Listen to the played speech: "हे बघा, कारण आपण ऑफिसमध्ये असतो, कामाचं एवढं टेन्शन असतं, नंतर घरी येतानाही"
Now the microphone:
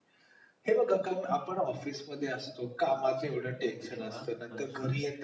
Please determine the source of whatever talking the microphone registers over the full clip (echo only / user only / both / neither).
both